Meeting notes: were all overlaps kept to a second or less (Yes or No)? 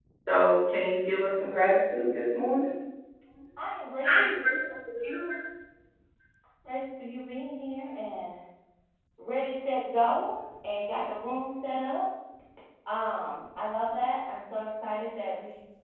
Yes